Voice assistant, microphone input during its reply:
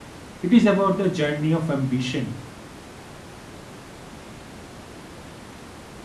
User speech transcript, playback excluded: it is about the journey of ambition

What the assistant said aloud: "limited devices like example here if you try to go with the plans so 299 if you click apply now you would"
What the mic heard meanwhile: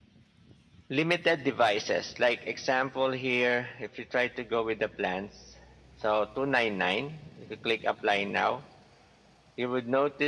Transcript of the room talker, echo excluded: none

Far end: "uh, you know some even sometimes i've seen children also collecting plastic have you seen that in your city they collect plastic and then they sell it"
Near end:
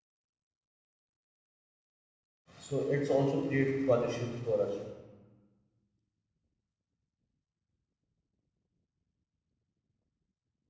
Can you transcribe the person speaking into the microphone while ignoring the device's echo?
so it's also create pollutions for us.

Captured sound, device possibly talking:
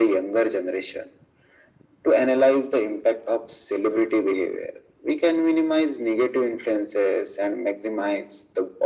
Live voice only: none

